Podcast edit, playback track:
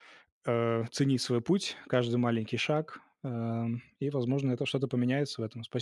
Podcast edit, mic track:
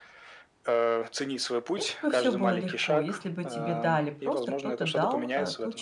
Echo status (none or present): present